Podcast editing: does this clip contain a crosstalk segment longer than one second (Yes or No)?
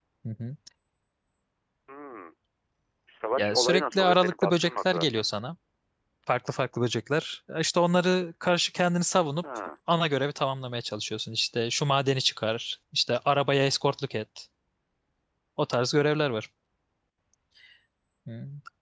Yes